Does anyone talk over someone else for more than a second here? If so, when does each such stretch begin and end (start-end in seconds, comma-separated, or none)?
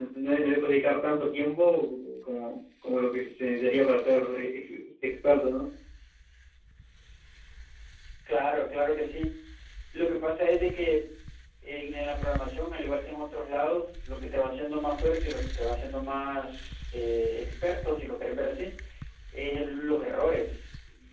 none